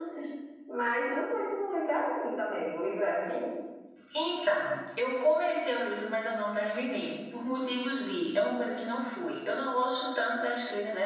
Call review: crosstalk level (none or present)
none